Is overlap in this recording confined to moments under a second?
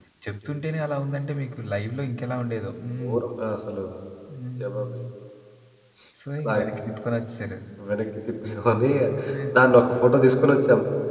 Yes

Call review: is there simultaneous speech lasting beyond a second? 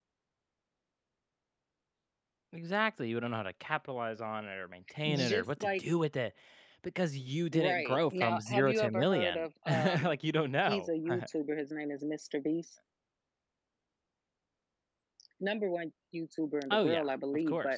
Yes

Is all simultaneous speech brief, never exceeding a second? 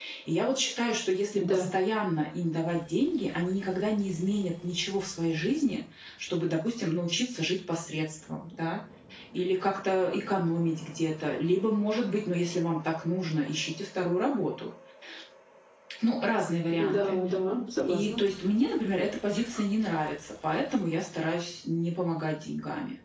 Yes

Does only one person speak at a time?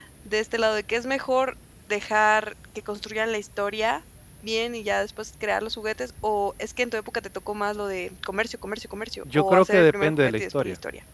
No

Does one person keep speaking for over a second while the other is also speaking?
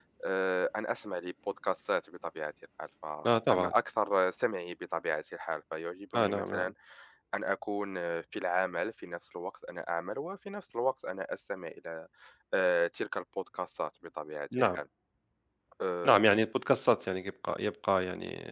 No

